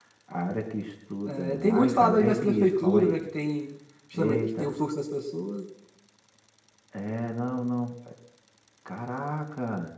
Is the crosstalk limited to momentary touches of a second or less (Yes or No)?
No